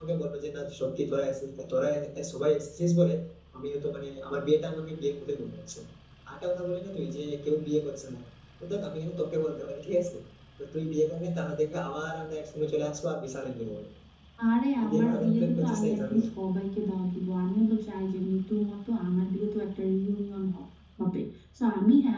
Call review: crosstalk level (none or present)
present